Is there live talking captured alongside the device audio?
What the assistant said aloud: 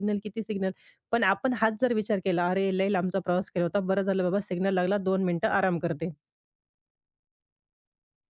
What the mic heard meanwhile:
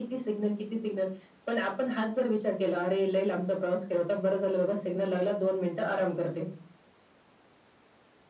No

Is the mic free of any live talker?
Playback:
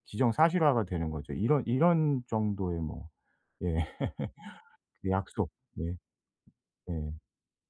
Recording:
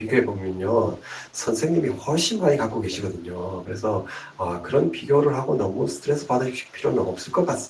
No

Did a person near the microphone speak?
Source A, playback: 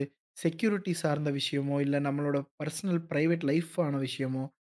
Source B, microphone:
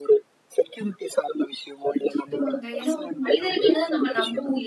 Yes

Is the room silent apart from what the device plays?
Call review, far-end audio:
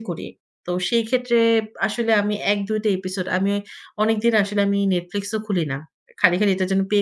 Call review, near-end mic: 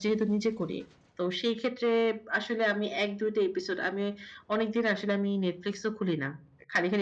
Yes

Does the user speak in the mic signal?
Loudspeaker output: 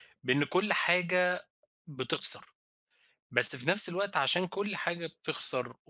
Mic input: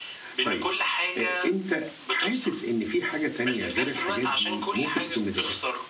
Yes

